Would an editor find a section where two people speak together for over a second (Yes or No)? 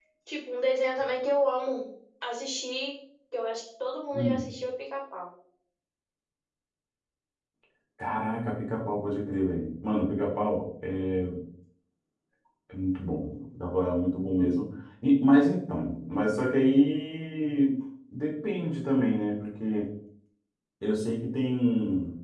No